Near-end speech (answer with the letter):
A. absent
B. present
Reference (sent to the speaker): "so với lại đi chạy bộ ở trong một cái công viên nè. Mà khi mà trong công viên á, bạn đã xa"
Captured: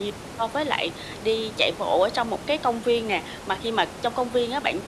A